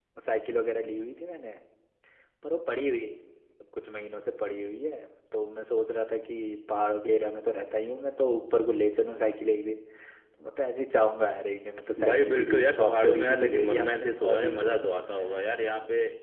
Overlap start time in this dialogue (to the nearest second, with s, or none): 12 s